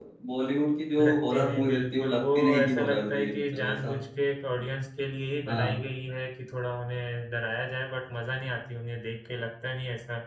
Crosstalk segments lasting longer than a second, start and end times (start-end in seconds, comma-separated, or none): 1.0-3.9